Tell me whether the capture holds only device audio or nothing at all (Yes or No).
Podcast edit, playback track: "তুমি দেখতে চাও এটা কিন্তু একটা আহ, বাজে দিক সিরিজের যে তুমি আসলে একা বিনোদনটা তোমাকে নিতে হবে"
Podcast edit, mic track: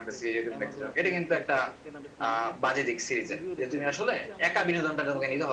No